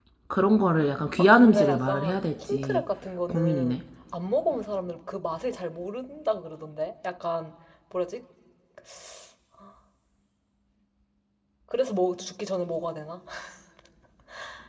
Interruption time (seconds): 1.2 s

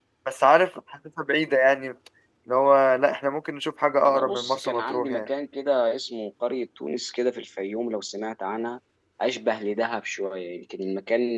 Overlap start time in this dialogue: 4.0 s

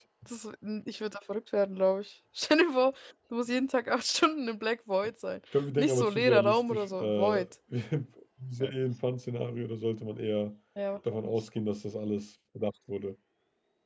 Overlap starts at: 5.8 s

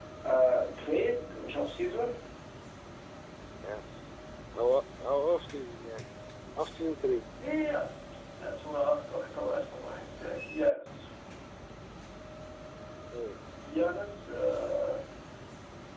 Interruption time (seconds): none

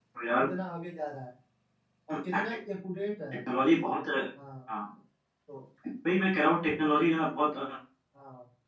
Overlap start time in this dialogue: none

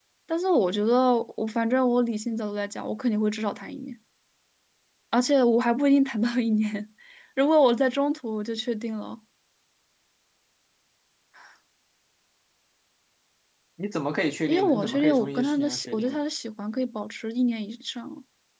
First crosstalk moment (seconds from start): 14.5 s

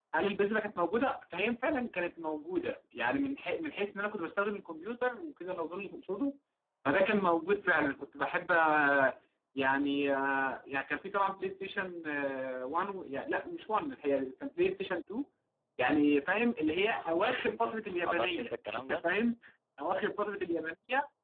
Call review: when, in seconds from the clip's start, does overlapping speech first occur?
17.0 s

